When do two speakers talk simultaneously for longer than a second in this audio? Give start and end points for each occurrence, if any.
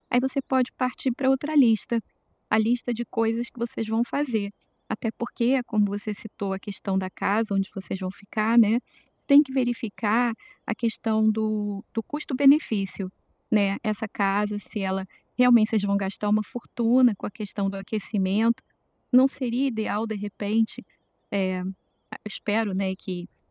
none

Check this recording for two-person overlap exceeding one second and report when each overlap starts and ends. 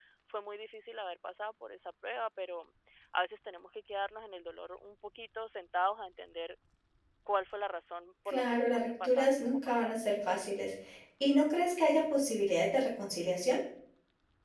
8.3-10.0

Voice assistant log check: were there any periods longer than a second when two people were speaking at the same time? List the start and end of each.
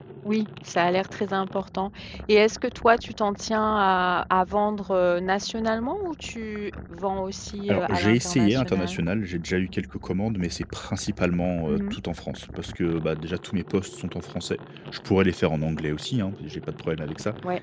7.7-9.0

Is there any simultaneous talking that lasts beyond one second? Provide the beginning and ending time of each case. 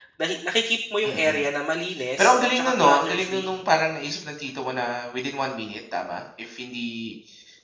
2.2-3.5

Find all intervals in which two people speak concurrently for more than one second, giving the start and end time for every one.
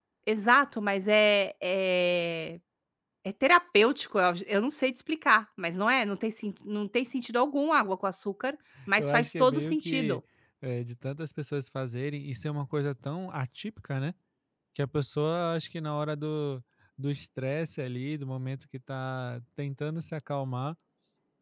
9.0-10.2

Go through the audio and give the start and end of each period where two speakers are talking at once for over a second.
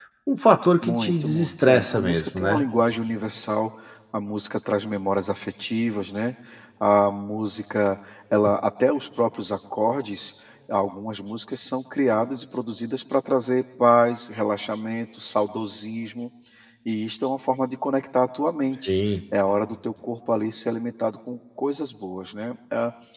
0.8-2.6

